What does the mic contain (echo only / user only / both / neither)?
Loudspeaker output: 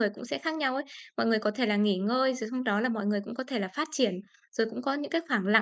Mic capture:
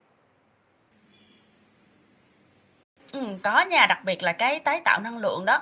user only